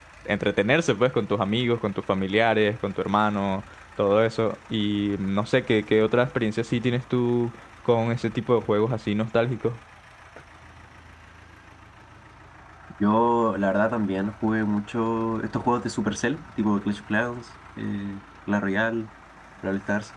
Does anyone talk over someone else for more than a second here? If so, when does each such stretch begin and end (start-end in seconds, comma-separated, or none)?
none